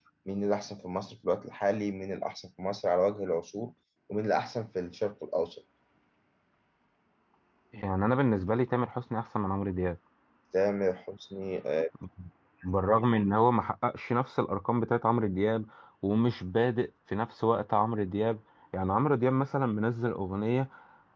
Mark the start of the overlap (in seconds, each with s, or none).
none